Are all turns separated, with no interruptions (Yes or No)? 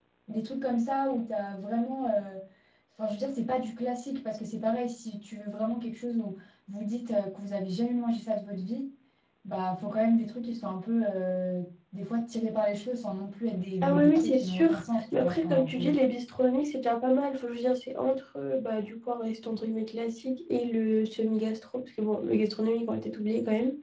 No